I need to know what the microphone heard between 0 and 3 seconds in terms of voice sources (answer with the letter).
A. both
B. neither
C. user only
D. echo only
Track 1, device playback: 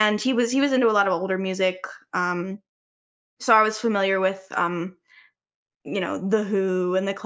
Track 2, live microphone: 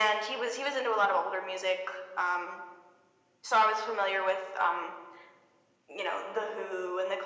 D